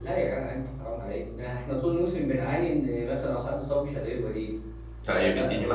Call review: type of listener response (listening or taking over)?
taking over